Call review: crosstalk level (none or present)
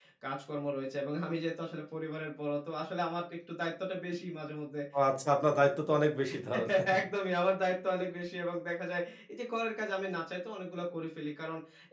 none